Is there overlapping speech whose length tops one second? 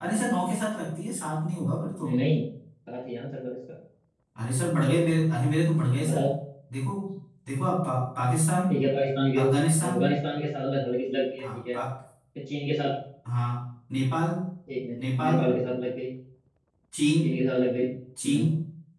No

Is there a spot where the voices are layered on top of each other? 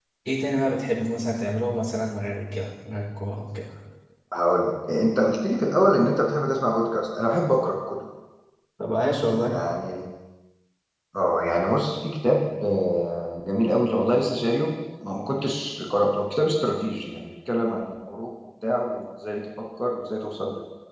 No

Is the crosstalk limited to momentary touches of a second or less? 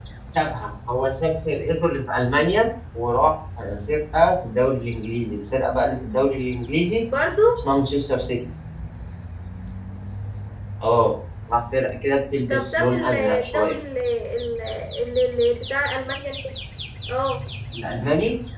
No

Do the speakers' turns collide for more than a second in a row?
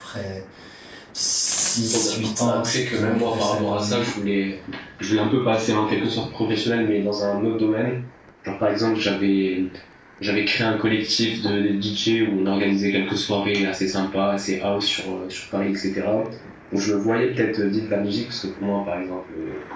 Yes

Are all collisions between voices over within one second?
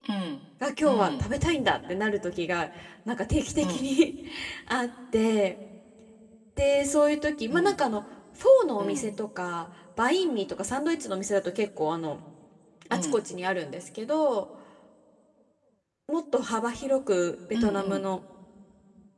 Yes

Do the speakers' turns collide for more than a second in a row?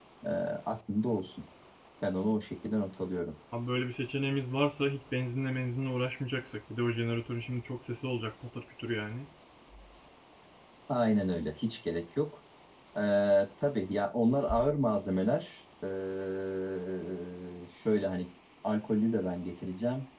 No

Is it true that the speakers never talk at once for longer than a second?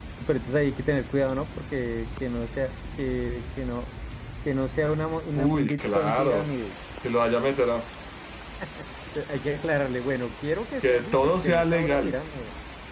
No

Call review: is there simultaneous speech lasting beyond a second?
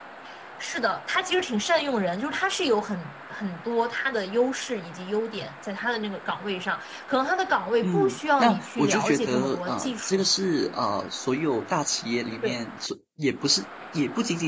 Yes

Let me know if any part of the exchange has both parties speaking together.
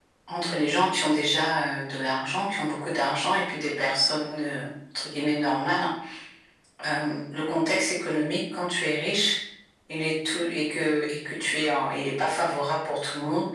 No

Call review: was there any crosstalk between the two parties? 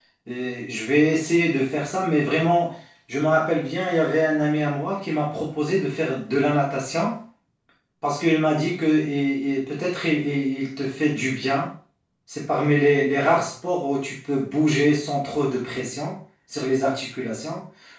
No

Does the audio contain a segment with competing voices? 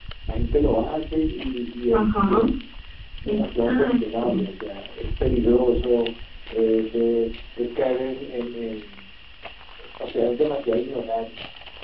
Yes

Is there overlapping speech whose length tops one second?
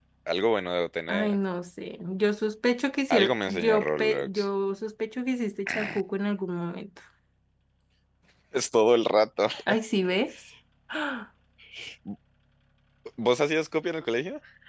Yes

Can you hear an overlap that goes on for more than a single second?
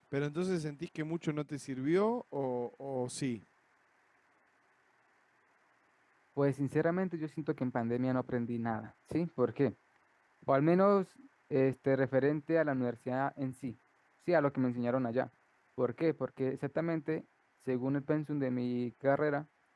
No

